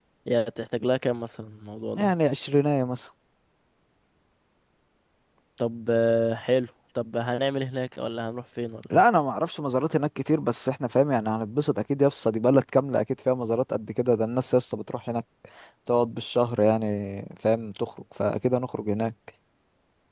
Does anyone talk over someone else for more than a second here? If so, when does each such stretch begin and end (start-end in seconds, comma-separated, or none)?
none